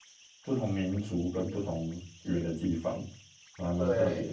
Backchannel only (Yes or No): No